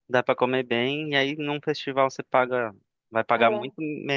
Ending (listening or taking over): listening